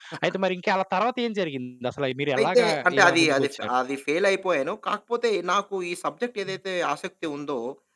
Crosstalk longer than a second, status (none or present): present